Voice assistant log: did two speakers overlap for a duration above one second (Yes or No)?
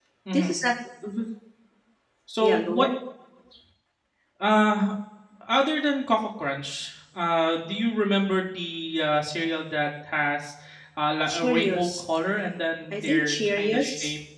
Yes